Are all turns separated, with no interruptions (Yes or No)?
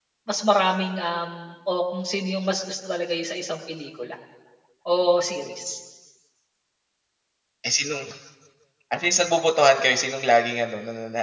Yes